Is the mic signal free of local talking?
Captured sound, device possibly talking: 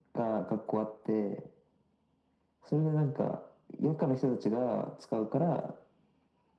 Yes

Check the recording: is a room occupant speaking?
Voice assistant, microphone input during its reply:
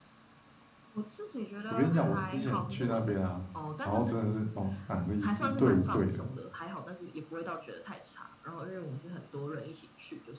Yes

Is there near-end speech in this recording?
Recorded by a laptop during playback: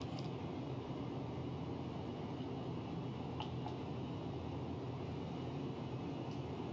No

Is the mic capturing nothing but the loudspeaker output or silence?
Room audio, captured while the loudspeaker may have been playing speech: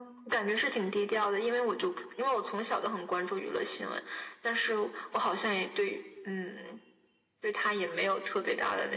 Yes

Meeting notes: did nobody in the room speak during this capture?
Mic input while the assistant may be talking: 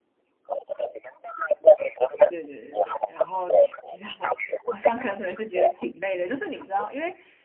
No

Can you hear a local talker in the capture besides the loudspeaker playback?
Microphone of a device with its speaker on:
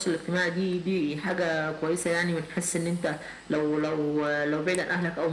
No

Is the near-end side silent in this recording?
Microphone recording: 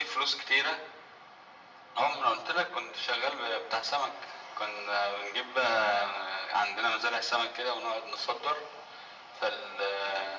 Yes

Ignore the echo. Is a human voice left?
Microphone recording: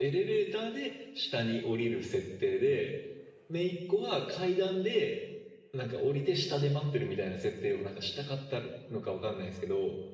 Yes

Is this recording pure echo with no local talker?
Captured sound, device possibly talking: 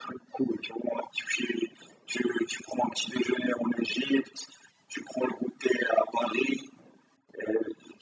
Yes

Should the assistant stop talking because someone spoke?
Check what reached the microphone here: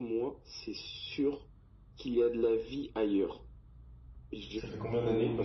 Yes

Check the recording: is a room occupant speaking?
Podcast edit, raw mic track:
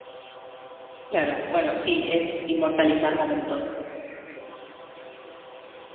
Yes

